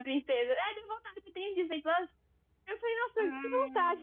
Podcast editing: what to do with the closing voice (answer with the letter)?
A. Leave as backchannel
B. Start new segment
A